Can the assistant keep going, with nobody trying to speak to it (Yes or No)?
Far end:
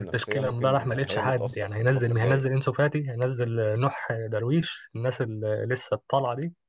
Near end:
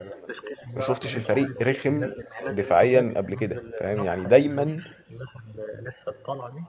No